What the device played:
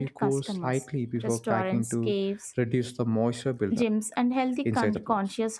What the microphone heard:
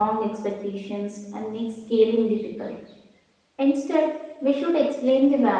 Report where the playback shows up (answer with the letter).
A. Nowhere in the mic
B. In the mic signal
A